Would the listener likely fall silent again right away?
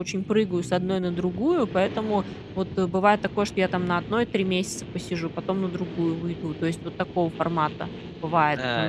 No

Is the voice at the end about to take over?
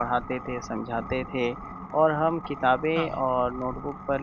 No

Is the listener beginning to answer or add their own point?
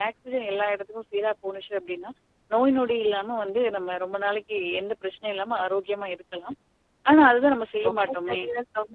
Yes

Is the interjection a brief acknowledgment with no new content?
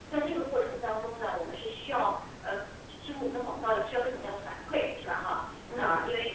Yes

